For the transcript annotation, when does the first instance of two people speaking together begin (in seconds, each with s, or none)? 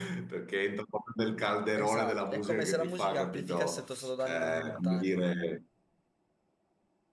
1.8 s